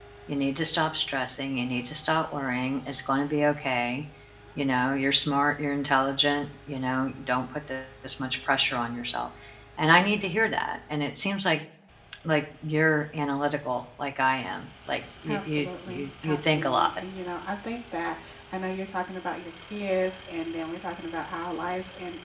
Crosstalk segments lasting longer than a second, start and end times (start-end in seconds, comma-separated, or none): 15.3-16.9